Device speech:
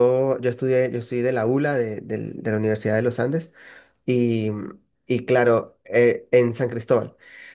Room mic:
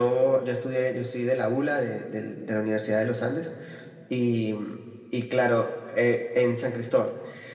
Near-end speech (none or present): none